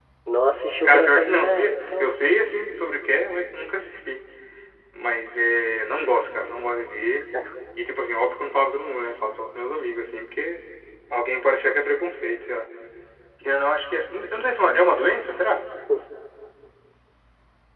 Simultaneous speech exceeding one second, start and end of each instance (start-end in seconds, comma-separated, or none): 0.8-2.1